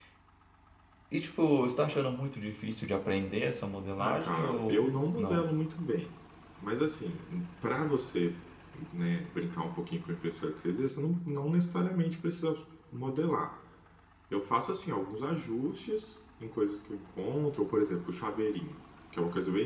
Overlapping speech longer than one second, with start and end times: 4.0-5.4

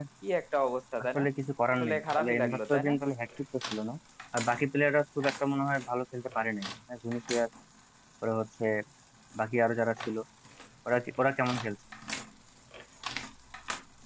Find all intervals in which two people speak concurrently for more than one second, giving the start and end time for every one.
1.7-2.9

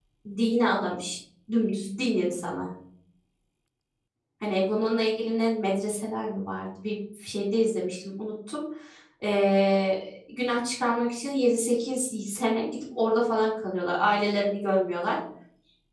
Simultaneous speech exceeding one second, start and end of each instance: none

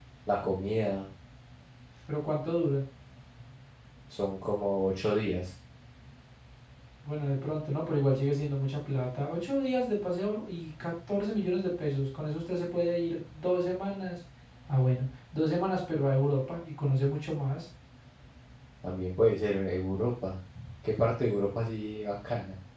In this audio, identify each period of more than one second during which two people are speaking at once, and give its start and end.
none

